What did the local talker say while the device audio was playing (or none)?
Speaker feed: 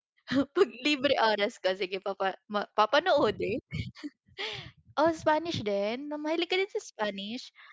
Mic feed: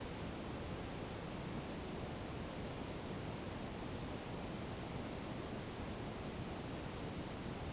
none